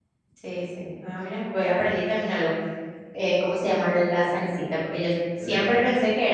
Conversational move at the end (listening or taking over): listening